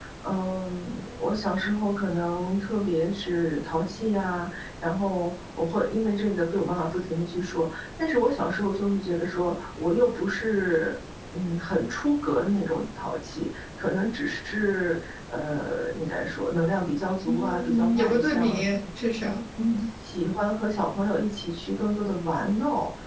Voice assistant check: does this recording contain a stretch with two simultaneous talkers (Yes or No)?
Yes